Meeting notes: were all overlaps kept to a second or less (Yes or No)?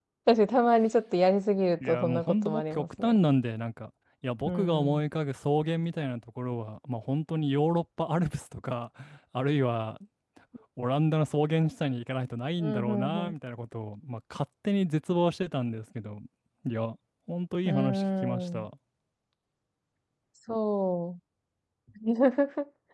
No